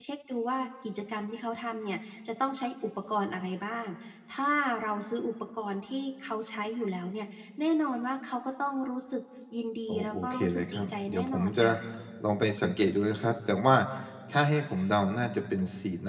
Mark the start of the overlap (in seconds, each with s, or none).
9.9 s